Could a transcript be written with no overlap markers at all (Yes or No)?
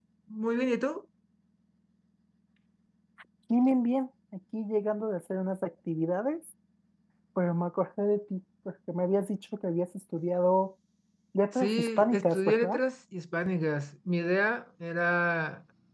No